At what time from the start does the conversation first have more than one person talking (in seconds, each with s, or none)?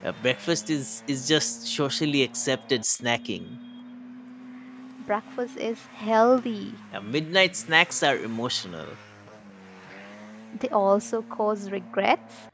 none